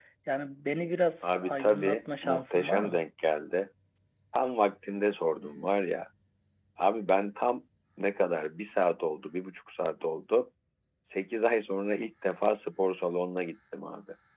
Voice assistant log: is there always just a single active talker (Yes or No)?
No